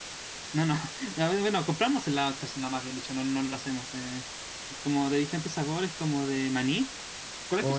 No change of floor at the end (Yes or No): No